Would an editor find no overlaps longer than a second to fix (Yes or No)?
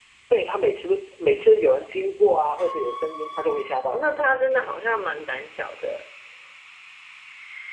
Yes